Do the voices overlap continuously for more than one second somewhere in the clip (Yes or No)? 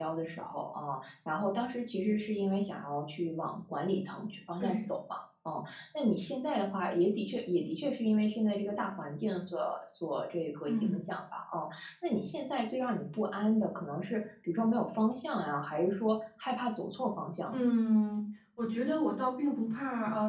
No